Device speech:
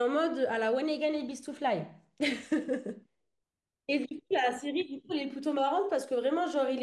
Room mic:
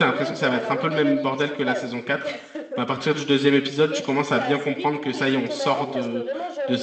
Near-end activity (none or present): present